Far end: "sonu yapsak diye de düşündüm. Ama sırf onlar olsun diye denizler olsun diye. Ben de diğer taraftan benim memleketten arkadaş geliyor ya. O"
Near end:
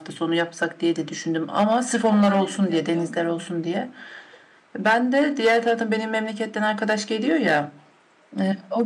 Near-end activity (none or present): present